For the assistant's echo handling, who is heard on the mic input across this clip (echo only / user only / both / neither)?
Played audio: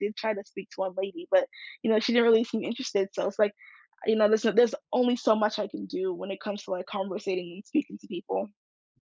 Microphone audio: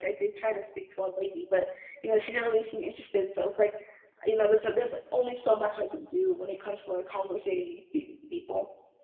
echo only